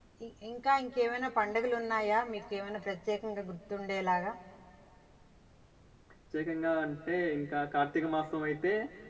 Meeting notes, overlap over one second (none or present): none